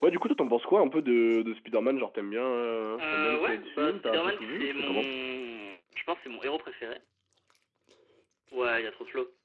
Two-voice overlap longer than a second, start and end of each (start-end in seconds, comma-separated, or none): 3.0-5.1